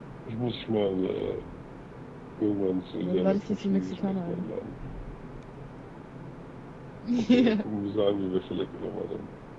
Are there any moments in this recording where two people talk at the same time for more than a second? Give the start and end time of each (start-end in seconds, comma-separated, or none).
3.0-4.5